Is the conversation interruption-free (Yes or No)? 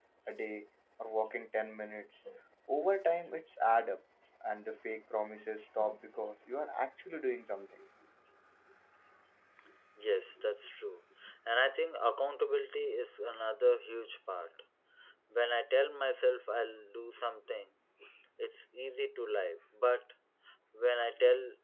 Yes